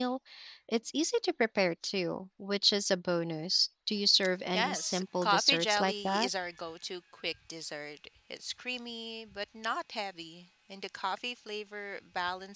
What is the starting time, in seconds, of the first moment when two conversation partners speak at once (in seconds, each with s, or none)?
4.5 s